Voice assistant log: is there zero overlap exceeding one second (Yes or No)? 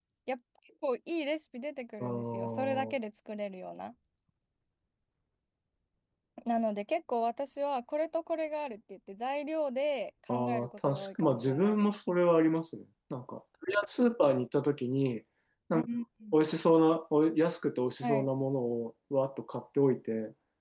No